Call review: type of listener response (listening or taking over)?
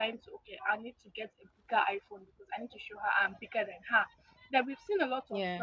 listening